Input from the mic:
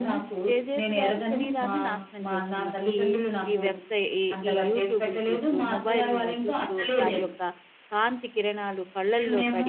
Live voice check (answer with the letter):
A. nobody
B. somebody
B